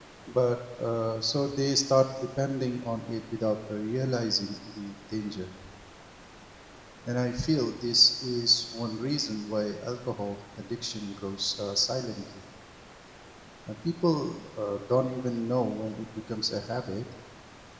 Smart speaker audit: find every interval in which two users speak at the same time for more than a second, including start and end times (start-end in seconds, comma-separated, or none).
none